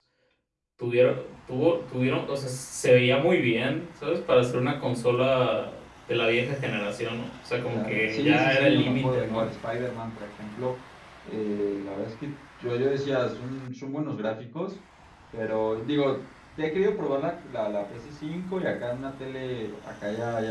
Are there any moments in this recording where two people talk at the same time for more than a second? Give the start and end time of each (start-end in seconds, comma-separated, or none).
7.7-9.5